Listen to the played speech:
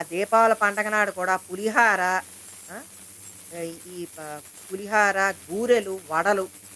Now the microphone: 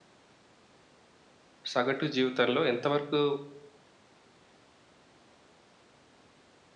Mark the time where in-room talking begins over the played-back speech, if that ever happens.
1.7 s

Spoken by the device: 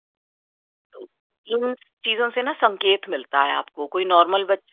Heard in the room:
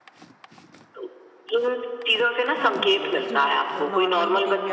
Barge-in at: 2.5 s

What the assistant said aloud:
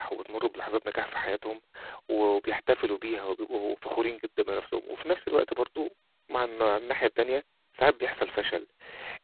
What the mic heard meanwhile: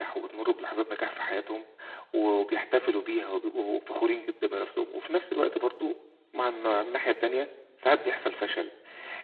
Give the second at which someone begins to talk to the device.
none

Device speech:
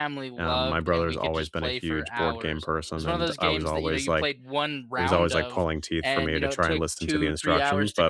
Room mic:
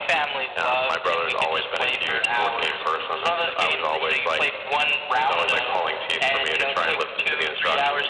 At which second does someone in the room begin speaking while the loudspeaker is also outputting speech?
none

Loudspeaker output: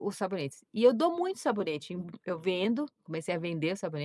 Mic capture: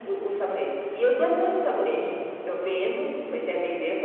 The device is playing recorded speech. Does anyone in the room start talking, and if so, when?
none

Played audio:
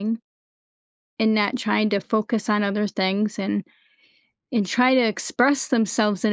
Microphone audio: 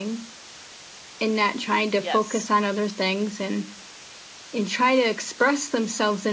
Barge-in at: 2.0 s

